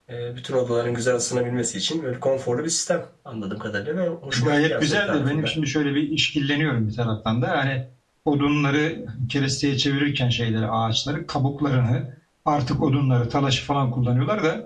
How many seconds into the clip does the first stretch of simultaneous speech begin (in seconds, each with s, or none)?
4.3 s